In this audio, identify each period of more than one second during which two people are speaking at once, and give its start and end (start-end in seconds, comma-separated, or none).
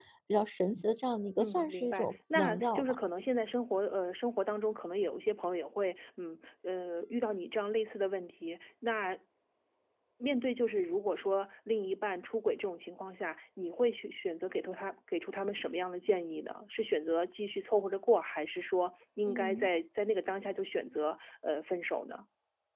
1.4-3.0